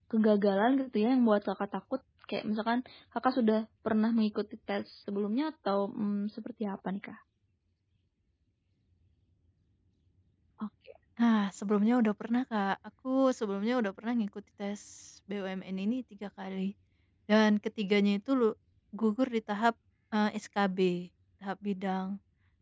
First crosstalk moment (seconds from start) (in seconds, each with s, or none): none